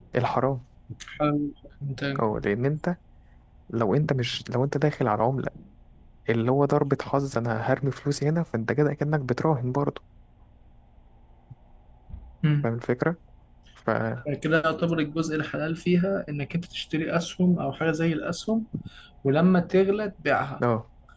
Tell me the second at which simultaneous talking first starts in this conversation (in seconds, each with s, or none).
none